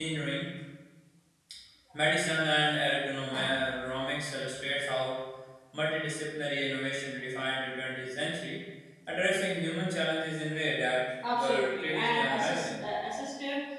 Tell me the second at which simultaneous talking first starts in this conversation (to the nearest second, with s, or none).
11 s